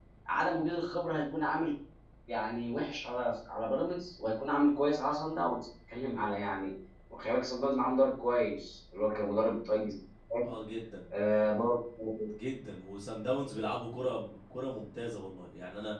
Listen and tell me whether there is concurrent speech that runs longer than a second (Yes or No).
No